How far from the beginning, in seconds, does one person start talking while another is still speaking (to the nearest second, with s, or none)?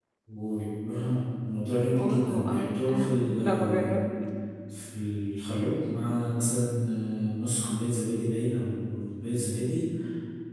2 s